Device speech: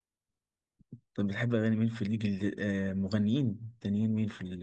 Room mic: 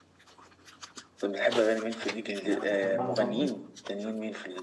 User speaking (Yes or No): Yes